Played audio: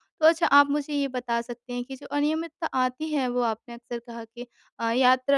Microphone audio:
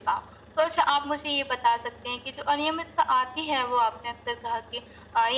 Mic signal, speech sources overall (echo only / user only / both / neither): echo only